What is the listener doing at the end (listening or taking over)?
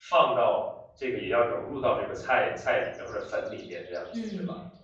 taking over